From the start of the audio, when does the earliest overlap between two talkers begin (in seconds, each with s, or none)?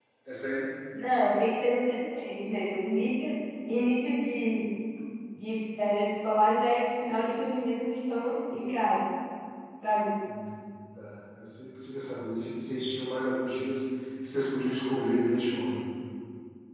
none